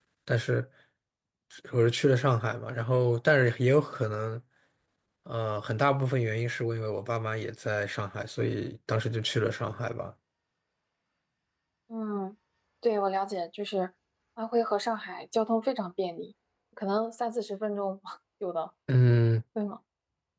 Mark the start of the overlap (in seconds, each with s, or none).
none